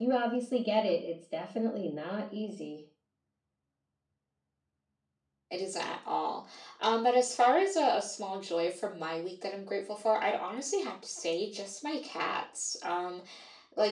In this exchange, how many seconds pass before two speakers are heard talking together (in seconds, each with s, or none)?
none